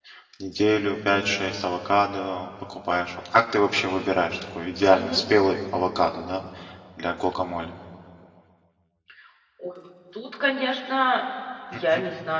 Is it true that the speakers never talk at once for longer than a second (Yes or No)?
Yes